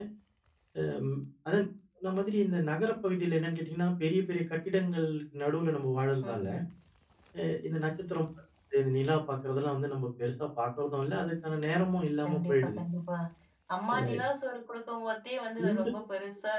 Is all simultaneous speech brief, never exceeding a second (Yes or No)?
Yes